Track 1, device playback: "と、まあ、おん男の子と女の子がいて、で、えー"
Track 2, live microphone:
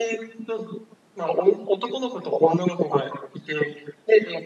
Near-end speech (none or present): none